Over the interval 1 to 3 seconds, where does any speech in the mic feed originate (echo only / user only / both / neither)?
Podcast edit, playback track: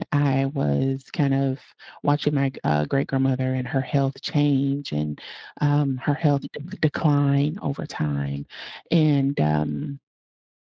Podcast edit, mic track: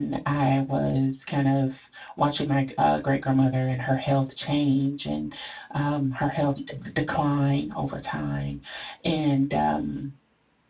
echo only